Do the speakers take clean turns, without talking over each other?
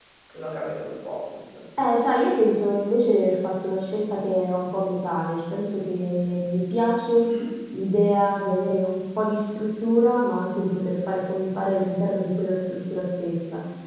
Yes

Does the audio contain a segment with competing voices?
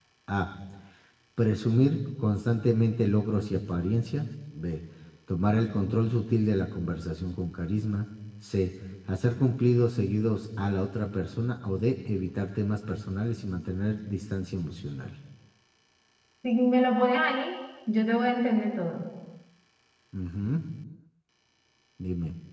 No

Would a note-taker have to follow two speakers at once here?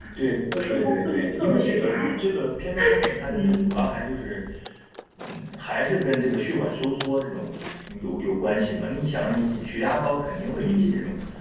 Yes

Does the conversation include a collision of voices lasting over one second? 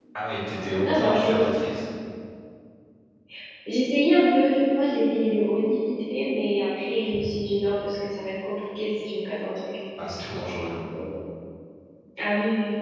No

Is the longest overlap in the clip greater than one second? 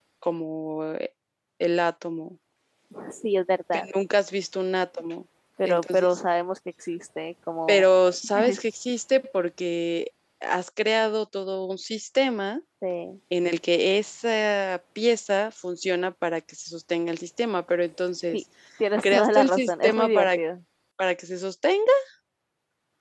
Yes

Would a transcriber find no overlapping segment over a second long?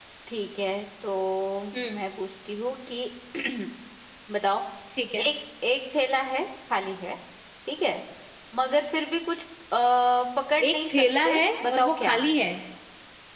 No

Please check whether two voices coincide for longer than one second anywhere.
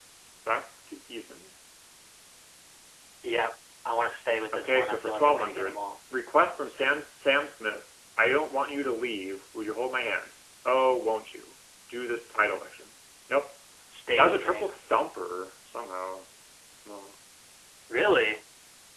Yes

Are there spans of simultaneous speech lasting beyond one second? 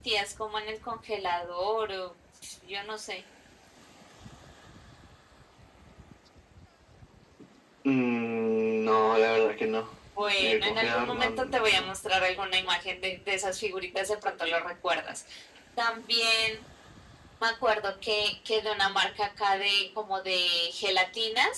Yes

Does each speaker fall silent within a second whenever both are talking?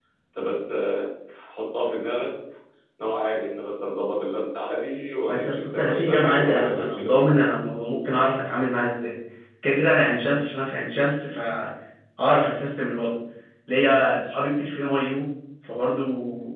No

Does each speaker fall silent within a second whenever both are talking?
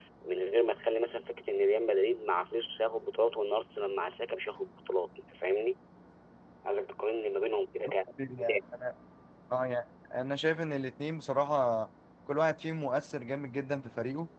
Yes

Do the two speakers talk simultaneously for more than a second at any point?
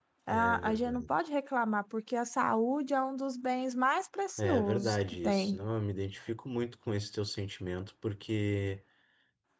Yes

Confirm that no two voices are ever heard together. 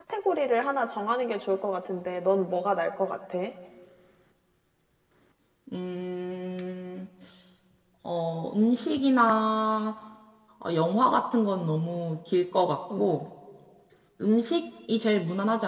Yes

